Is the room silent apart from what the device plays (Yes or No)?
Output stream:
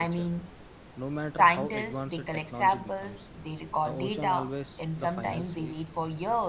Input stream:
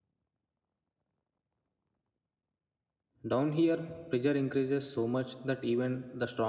No